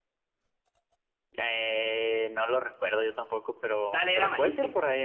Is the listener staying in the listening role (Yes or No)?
No